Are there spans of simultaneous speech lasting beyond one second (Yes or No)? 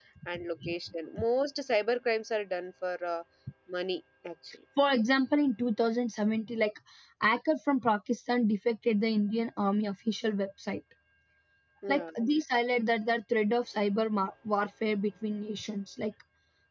No